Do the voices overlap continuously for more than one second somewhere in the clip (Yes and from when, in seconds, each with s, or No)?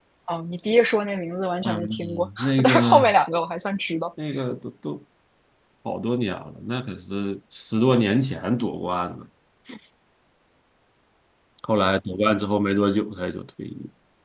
Yes, from 1.6 s